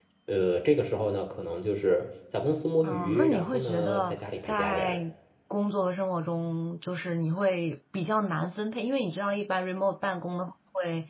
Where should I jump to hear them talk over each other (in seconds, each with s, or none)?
2.8 s